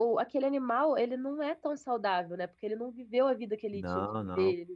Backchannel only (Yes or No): Yes